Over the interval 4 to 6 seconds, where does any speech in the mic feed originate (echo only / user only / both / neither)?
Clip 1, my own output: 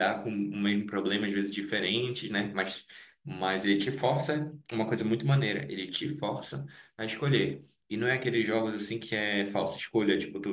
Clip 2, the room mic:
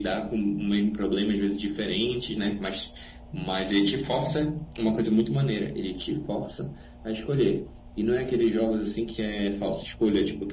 echo only